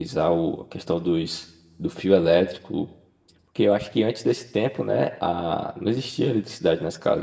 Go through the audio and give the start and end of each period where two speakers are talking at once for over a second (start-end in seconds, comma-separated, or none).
none